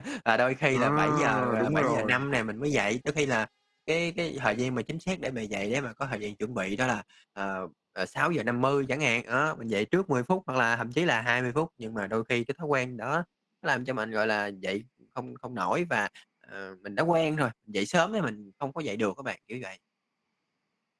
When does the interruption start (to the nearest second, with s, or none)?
1 s